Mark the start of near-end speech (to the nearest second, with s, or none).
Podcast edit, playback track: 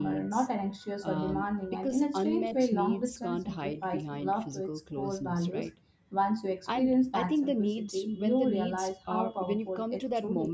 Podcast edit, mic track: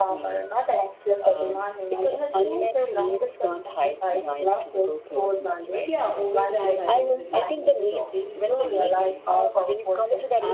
6 s